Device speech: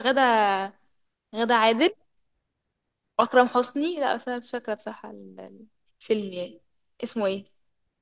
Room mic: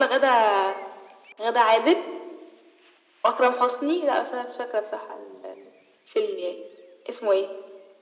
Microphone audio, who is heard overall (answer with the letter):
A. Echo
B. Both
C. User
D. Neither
A